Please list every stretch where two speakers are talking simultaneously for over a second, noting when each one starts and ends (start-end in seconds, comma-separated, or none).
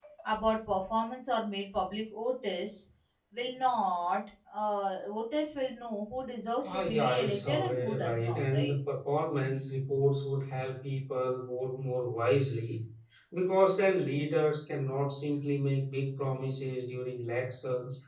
6.6-8.8